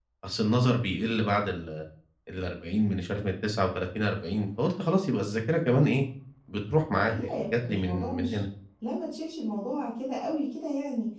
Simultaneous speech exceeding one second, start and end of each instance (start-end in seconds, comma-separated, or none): 7.1-8.4